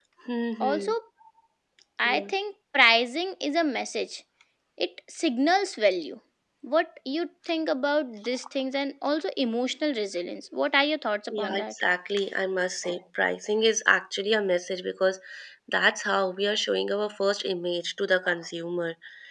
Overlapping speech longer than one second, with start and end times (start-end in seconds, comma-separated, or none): none